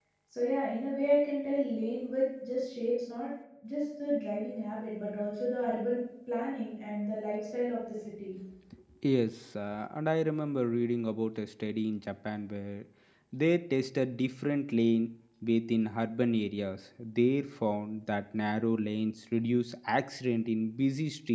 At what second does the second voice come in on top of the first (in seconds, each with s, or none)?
none